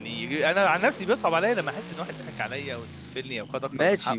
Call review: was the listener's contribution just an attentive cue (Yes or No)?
No